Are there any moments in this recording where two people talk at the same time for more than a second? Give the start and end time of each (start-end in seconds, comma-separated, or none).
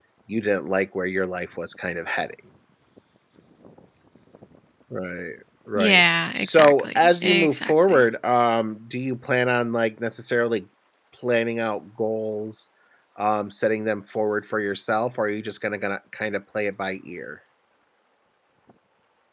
5.8-8.0